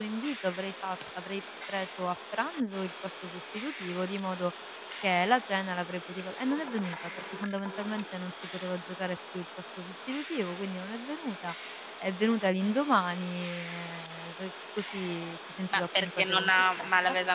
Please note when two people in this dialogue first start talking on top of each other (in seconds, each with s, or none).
15.7 s